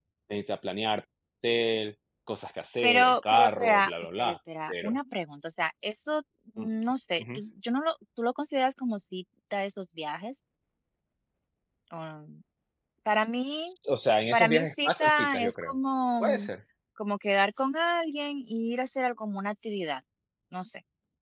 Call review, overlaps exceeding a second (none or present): present